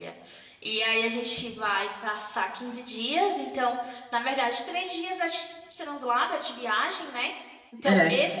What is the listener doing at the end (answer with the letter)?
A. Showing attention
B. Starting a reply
A